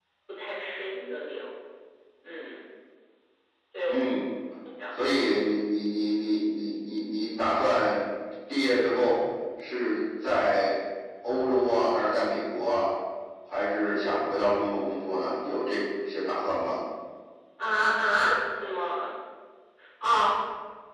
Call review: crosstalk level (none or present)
none